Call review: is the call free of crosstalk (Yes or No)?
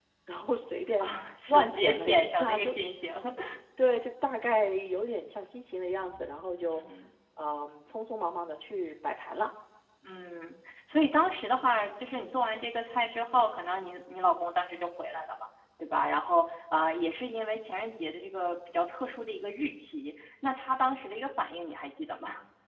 No